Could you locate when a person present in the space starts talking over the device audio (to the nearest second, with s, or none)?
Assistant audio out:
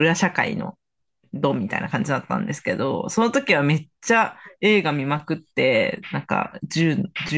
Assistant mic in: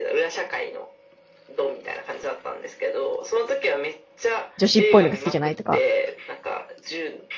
5 s